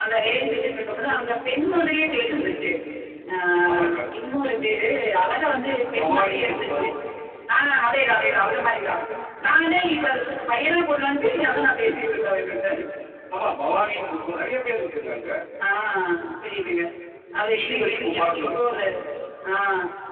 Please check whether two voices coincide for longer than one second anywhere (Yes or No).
Yes